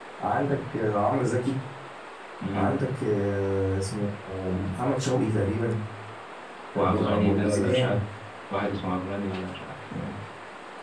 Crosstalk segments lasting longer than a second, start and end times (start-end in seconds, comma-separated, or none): 6.8-8.0